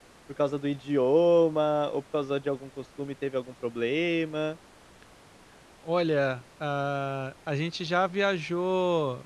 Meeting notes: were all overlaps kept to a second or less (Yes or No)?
Yes